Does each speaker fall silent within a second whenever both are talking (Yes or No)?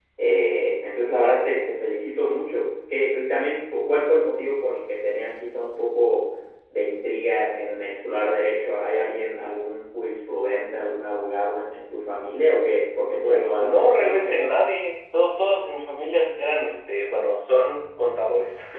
No